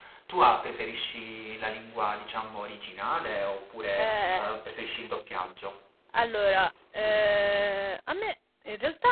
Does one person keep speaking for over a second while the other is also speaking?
No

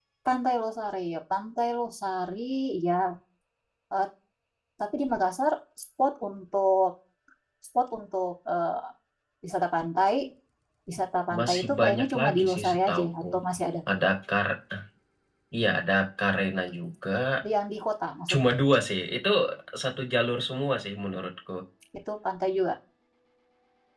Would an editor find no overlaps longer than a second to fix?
No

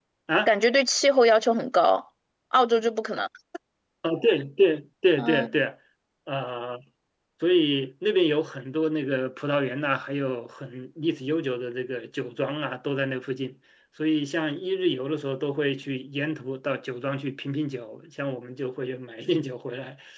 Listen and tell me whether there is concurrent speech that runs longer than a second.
No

